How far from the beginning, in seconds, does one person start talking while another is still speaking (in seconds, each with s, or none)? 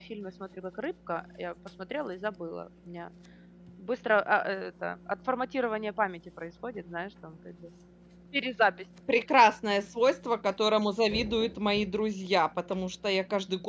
none